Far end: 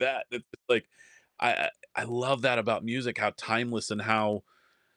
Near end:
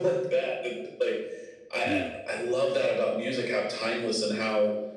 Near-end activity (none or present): present